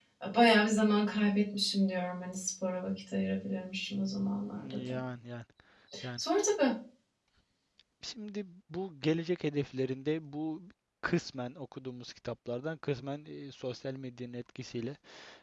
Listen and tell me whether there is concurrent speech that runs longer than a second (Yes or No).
No